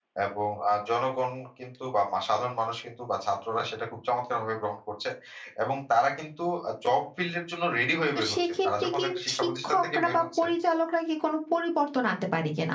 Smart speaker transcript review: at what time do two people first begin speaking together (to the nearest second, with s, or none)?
8 s